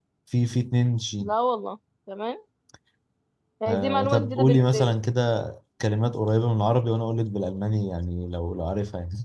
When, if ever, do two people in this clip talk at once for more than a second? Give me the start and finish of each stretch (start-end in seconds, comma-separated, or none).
3.7-4.9